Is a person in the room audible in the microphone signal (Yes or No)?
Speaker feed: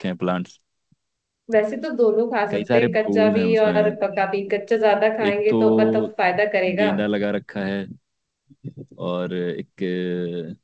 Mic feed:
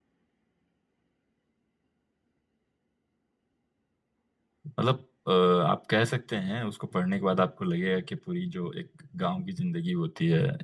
Yes